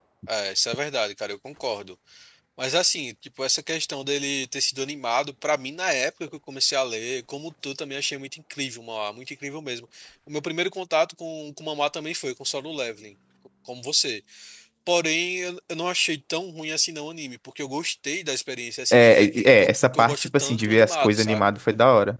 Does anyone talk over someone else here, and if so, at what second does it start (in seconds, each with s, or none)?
18.9 s